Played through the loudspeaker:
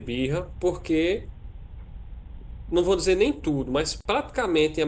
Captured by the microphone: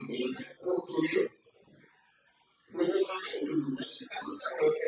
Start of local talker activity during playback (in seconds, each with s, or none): none